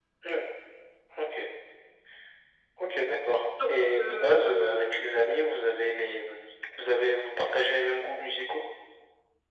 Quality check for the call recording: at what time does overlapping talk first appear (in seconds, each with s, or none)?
3.4 s